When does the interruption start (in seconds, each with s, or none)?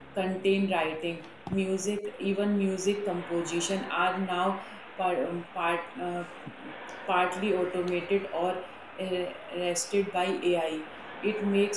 none